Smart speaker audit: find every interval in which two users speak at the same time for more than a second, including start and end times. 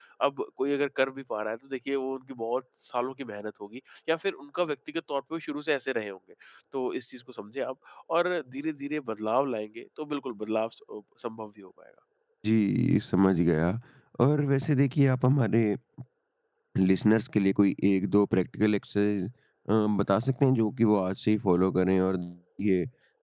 none

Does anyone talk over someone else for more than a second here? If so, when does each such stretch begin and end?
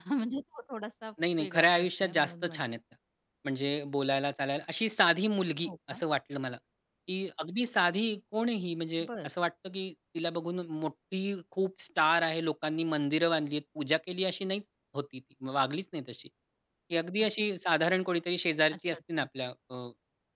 1.4-2.6

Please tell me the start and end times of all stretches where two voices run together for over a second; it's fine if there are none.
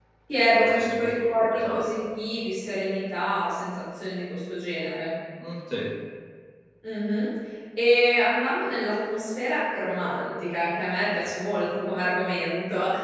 0.5-1.8

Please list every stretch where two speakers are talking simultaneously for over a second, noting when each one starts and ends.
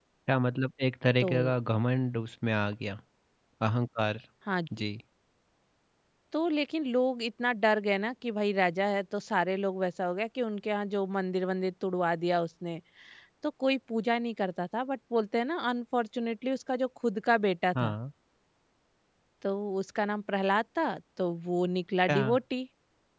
none

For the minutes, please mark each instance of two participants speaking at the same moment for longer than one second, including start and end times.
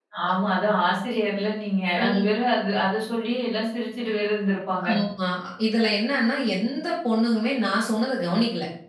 none

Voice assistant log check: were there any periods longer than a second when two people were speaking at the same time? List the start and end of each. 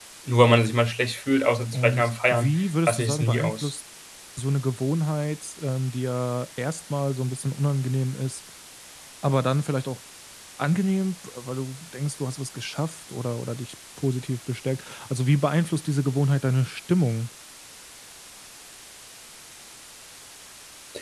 1.7-3.7

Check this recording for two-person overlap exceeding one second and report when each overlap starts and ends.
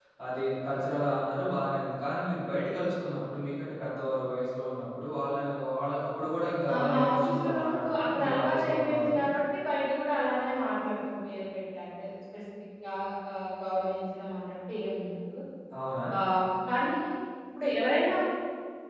6.7-9.2

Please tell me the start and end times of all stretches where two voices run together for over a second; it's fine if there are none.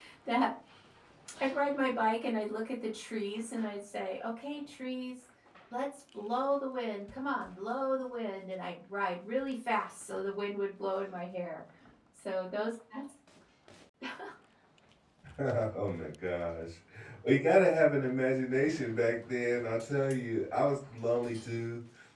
none

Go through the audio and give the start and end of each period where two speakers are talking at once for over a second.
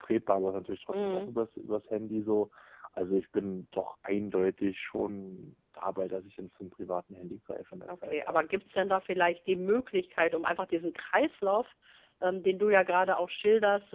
none

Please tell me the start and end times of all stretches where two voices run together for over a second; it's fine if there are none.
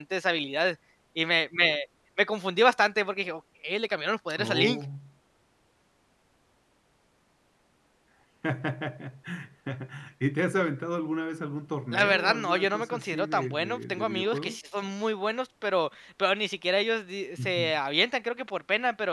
11.9-14.6

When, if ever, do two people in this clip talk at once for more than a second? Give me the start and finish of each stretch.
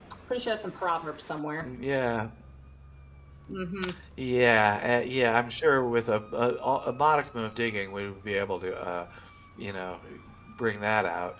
none

